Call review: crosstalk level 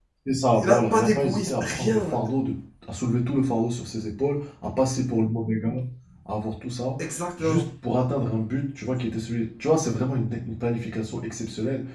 present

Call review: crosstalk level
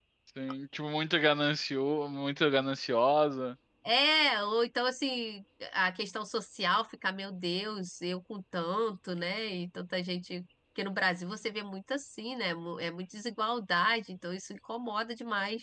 none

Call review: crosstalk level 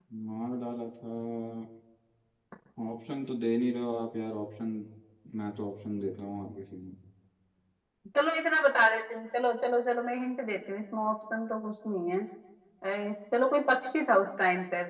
none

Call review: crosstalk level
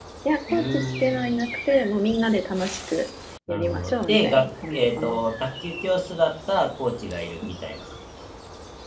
present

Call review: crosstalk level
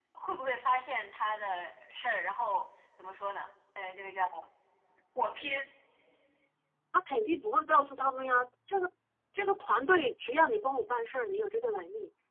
none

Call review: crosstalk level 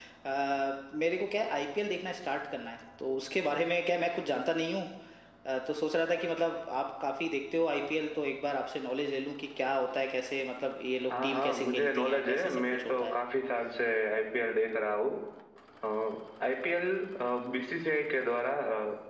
present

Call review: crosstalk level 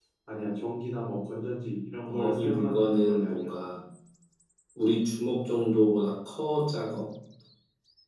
present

